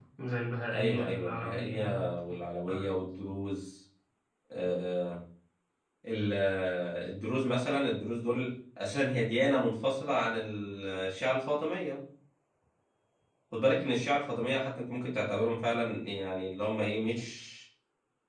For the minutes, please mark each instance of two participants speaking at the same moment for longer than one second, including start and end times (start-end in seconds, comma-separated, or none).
0.8-2.1